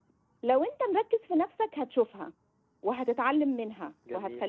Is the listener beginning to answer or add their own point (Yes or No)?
No